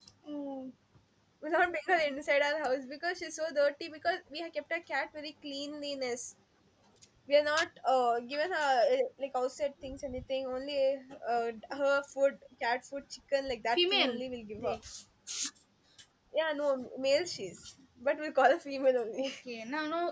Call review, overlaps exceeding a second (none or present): none